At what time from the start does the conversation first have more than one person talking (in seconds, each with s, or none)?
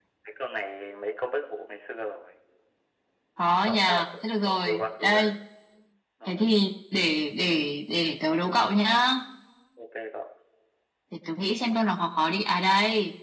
3.7 s